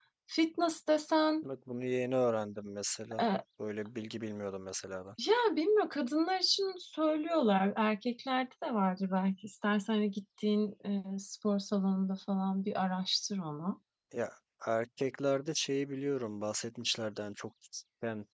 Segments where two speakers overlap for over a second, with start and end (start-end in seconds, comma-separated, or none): none